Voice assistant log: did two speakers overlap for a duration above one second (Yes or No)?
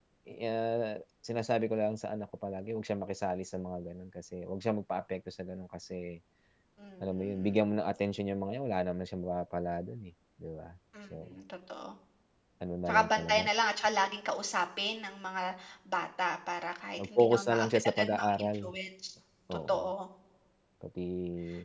Yes